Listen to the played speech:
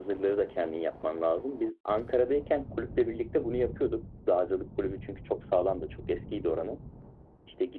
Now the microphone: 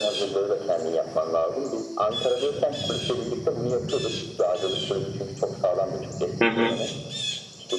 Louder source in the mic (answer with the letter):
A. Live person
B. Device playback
A